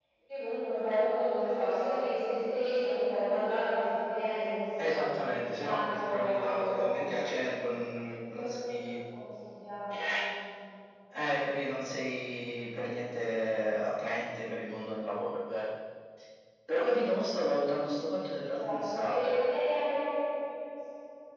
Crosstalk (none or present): present